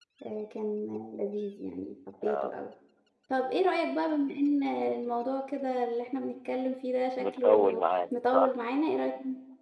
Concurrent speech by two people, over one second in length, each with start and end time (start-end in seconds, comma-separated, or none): 7.2-8.5